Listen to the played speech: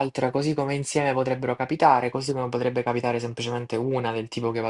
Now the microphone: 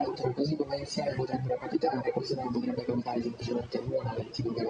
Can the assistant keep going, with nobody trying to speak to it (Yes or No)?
Yes